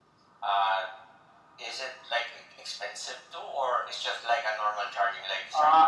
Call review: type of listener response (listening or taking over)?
taking over